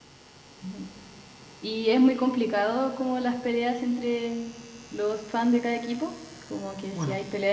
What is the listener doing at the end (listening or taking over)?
listening